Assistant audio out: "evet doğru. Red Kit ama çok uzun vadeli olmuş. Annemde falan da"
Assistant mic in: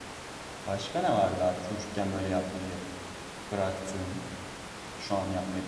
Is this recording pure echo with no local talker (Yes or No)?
No